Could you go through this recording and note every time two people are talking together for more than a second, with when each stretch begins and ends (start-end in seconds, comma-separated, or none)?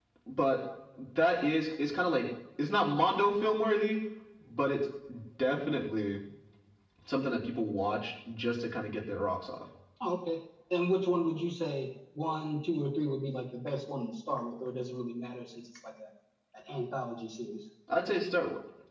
none